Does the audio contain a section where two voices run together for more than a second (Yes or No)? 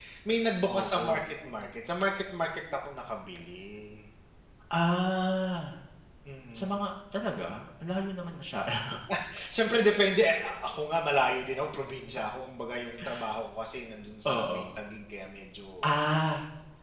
No